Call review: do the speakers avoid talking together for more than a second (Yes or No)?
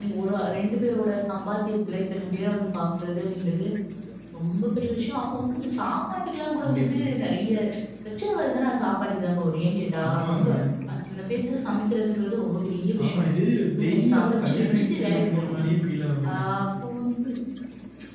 No